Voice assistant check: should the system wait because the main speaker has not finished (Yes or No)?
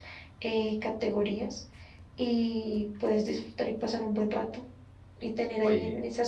Yes